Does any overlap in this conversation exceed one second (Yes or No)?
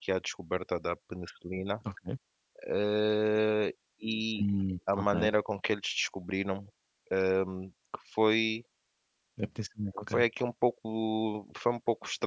No